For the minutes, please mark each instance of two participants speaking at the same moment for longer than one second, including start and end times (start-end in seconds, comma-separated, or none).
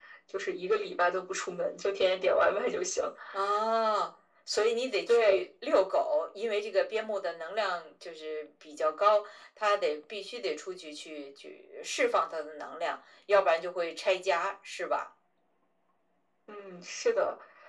none